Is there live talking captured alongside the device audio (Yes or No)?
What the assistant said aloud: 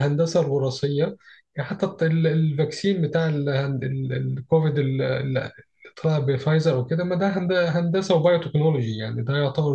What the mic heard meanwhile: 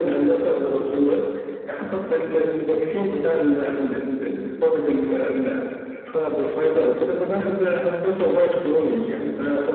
No